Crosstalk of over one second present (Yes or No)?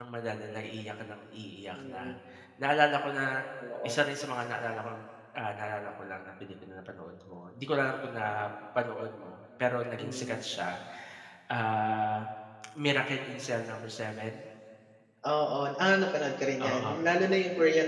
No